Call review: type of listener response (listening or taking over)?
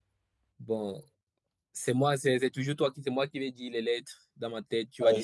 taking over